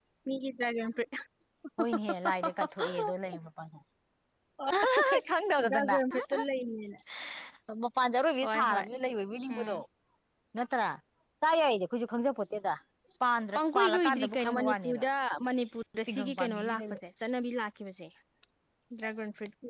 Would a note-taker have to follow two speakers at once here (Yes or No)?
Yes